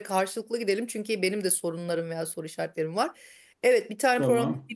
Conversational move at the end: listening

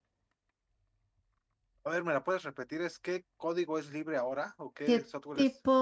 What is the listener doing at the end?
taking over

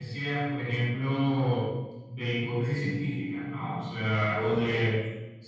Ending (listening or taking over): listening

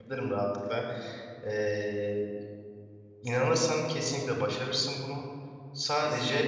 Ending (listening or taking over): listening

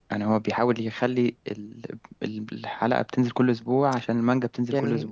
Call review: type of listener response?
listening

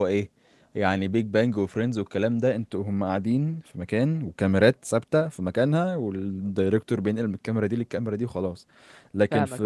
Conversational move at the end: listening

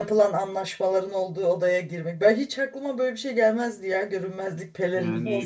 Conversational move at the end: taking over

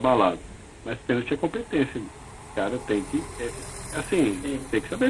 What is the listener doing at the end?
listening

